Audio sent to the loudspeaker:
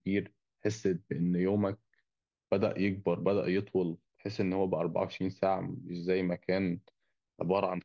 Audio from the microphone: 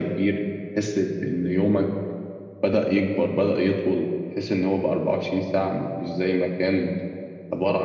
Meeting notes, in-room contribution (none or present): none